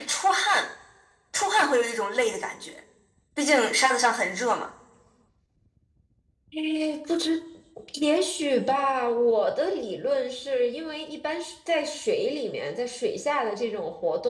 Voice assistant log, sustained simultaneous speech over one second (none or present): none